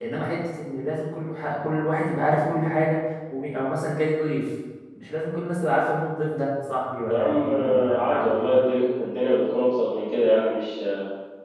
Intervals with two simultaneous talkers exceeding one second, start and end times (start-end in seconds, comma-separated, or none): 7.1-8.5